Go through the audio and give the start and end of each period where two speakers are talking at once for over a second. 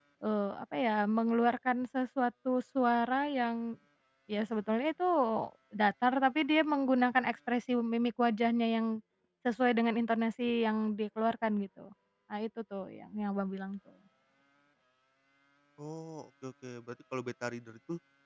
none

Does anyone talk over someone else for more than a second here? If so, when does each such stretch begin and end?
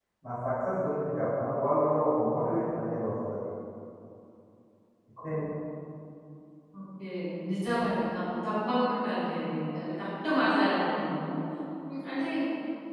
none

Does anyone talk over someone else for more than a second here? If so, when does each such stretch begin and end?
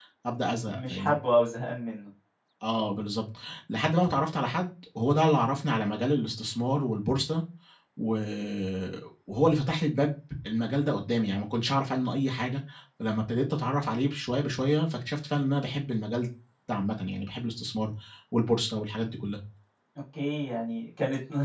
none

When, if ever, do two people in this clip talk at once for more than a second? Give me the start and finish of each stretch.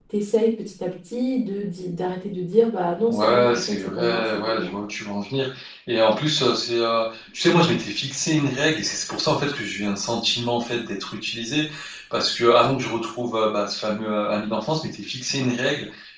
3.1-4.7

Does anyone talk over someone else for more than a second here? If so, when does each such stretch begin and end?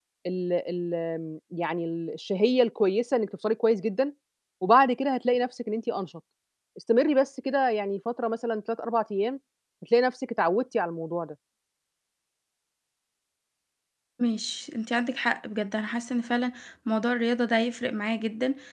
none

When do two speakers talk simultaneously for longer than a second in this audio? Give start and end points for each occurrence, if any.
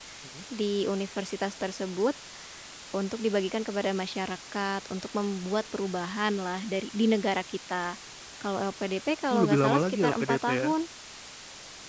9.3-10.7

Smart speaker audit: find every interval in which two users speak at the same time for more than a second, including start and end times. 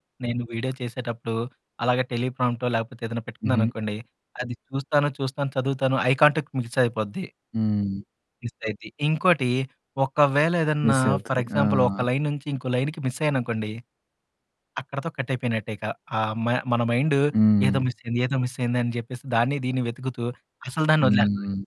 10.8-12.1

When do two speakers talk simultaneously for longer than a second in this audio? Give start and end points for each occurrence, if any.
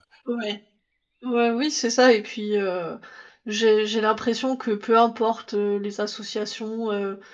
none

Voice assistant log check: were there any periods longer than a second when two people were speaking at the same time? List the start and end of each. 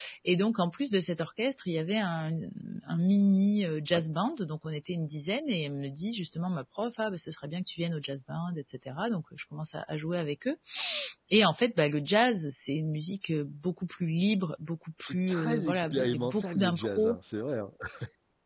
15.0-17.2

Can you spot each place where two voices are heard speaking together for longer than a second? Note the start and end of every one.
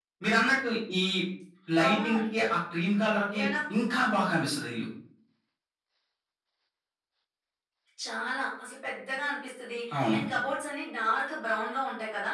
none

